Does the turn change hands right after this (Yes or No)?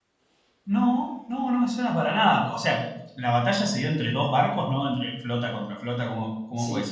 Yes